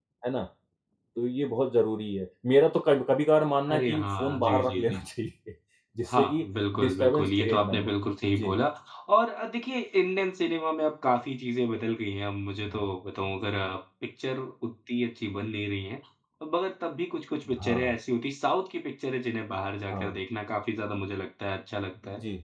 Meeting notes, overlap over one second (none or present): present